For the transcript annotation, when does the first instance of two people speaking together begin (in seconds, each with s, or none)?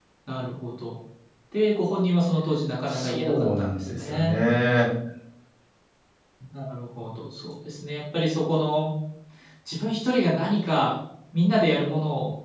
2.9 s